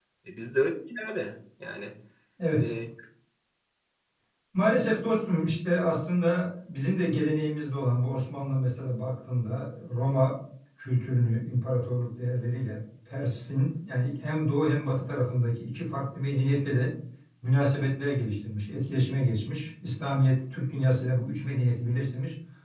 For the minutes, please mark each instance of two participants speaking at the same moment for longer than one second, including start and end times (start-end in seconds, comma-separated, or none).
none